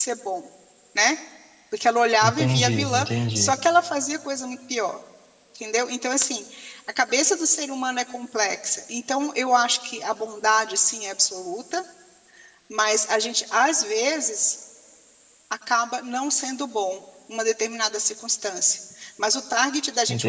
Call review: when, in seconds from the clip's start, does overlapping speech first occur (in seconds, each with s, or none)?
2.2 s